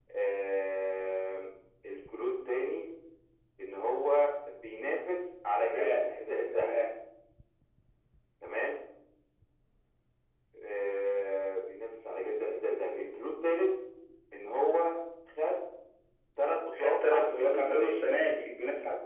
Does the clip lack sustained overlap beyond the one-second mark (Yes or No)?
No